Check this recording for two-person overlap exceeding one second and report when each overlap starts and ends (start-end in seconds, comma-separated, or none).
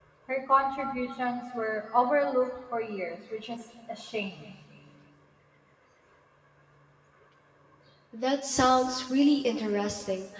none